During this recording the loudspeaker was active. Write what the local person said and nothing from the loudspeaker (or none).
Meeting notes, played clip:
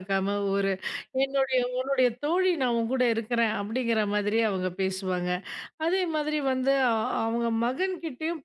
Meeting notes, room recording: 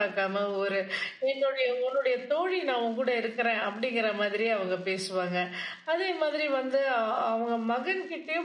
none